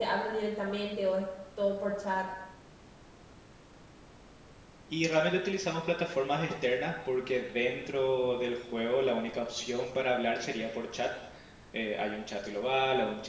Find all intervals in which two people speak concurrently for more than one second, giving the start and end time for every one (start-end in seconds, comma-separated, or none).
none